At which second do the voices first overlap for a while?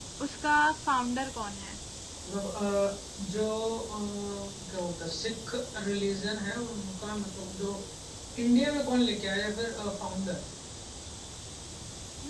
none

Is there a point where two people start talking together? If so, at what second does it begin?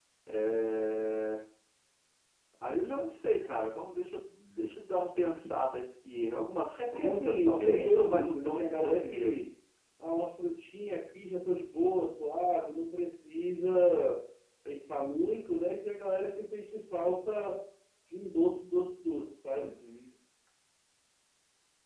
6.8 s

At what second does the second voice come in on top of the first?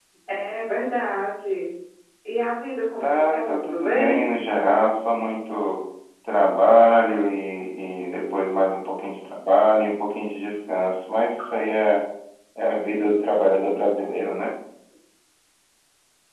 3.0 s

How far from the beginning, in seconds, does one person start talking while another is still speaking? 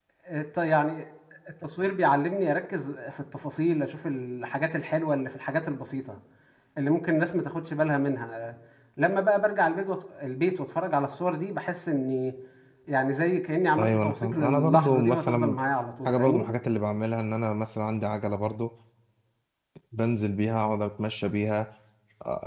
13.8 s

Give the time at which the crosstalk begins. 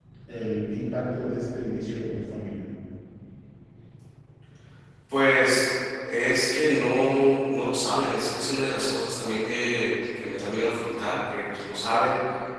none

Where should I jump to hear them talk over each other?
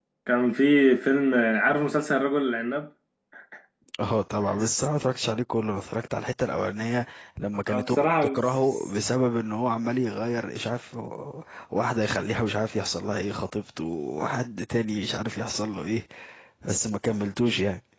7.7 s

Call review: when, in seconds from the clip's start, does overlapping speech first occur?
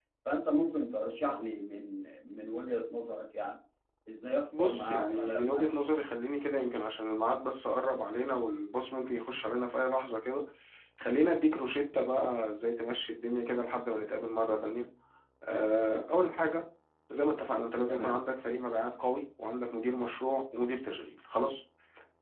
4.6 s

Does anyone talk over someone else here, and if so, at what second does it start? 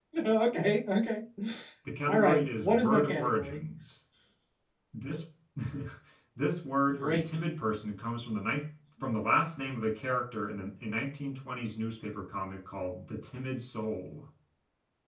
2.1 s

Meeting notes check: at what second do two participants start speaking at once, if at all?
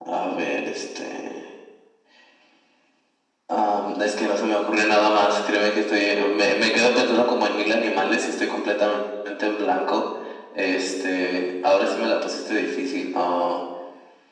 none

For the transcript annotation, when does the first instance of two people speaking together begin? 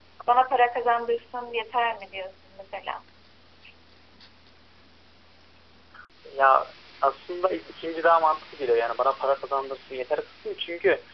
none

